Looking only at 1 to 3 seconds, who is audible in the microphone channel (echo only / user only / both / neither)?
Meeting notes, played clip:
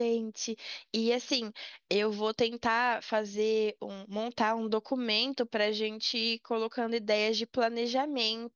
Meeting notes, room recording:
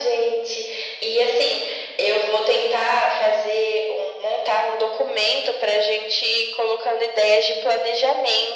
echo only